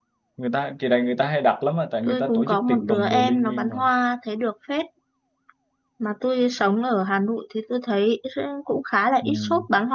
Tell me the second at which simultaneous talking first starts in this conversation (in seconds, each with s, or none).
2.1 s